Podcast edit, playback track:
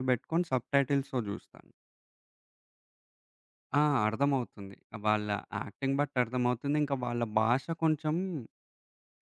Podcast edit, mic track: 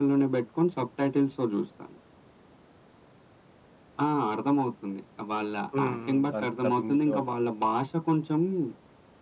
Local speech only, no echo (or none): హ్మ్. హ్మ్. దానికి డబ్బింగ్ జెప్పేవాళ్ళుంటారు.